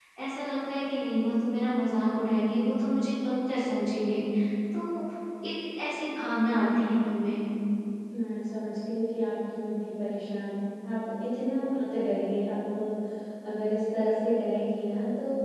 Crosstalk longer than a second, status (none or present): none